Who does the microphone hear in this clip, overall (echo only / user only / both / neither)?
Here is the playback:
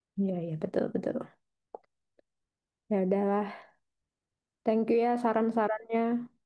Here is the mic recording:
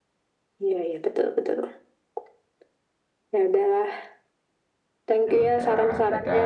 both